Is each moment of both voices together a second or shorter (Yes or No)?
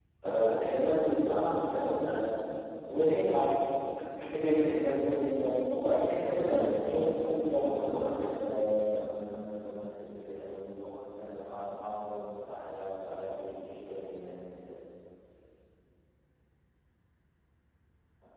No